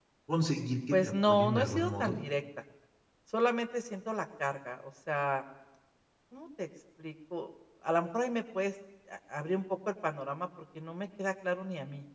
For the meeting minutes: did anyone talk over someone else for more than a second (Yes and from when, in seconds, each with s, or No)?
Yes, from 0.9 s